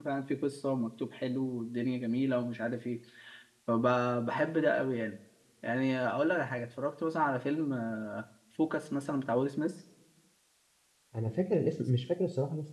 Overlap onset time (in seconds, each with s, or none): none